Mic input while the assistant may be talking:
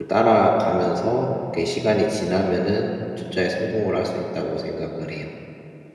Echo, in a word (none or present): none